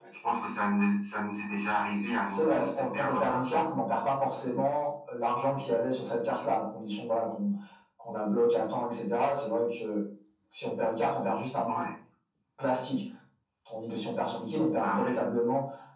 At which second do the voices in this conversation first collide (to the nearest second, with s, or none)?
2 s